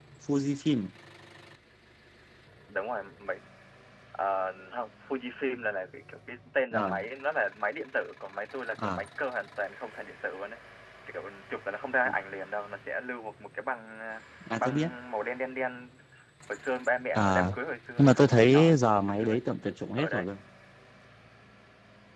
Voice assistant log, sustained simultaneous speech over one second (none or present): present